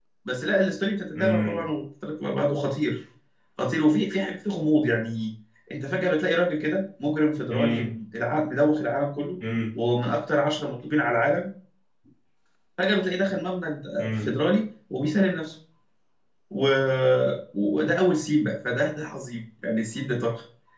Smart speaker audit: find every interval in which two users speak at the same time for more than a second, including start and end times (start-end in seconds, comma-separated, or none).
none